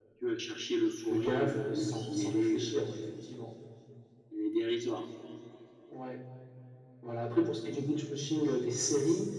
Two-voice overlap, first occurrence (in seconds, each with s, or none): 1.1 s